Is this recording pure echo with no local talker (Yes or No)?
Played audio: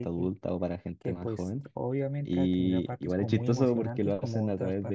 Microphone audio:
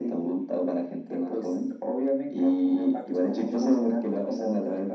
Yes